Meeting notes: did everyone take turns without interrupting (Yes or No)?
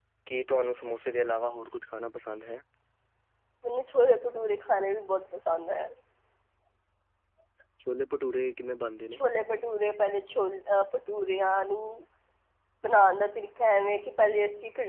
Yes